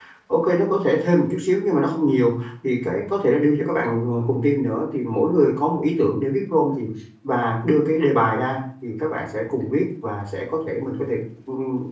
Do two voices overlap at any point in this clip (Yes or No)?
No